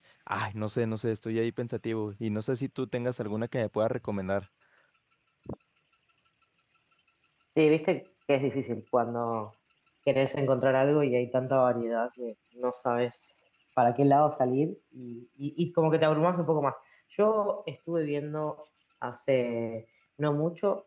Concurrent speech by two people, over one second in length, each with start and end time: none

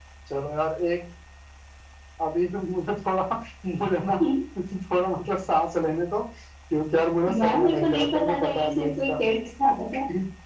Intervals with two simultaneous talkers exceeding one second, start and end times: 7.3-9.2

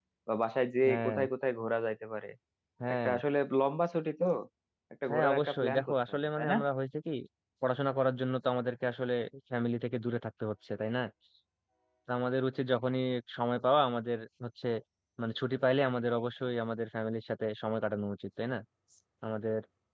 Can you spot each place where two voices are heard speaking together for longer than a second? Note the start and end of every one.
5.1-6.6

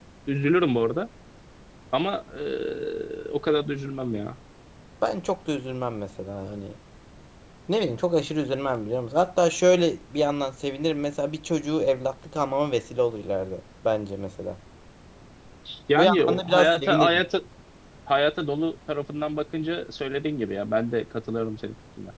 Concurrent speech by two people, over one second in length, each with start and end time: 15.9-17.2

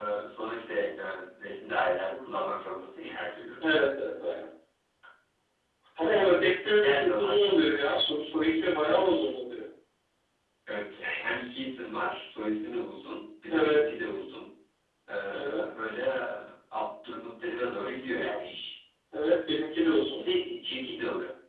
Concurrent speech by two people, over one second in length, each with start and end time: 6.0-7.5

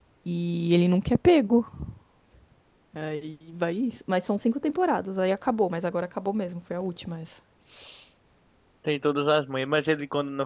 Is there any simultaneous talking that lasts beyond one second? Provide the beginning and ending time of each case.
none

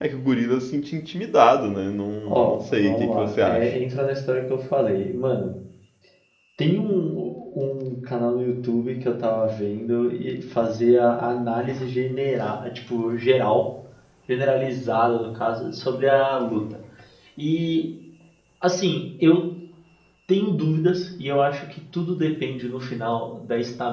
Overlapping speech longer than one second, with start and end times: 2.3-3.7

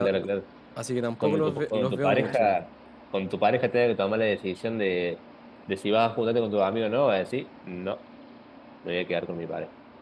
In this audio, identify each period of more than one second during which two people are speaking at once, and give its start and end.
1.2-2.5

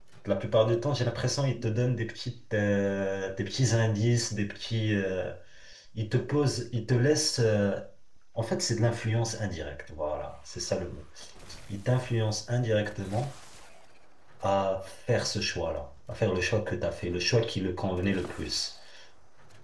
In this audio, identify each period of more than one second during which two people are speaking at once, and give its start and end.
none

